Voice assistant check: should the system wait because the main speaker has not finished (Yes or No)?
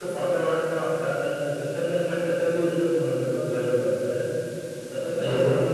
Yes